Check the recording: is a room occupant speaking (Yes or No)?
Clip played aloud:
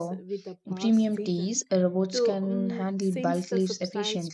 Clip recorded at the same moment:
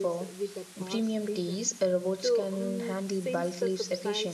No